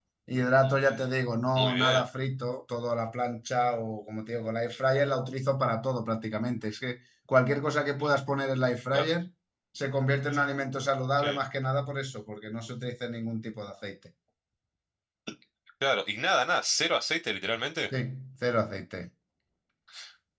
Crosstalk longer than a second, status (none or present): none